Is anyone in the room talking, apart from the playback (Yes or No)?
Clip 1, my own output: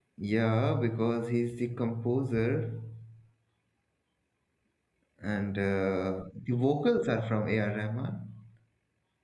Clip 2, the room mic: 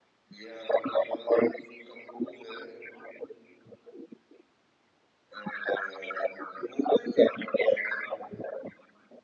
No